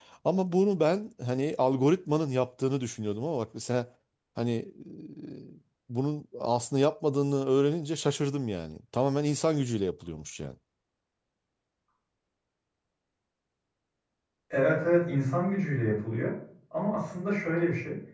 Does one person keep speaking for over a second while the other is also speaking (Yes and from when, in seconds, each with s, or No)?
No